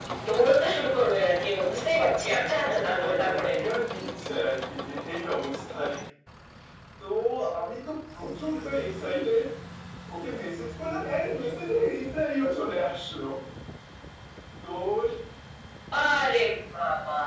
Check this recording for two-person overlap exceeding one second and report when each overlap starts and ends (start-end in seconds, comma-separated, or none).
2.3-3.5